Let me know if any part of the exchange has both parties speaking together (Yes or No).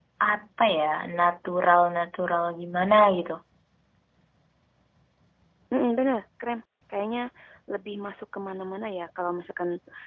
No